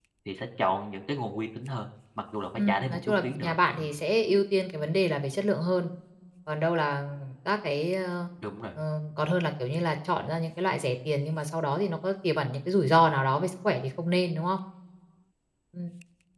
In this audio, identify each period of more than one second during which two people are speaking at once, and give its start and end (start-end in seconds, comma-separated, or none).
2.5-3.9